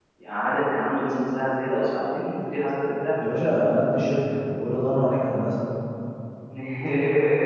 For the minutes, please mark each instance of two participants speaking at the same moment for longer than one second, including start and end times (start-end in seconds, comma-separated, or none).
none